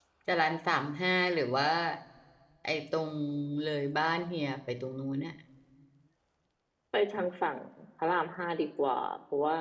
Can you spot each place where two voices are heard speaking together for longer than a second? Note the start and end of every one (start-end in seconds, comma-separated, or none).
none